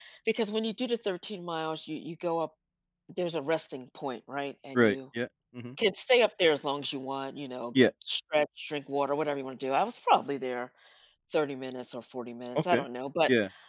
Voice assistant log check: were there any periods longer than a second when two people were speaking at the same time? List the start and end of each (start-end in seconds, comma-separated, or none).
none